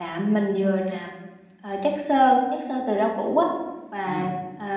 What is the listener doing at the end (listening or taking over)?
listening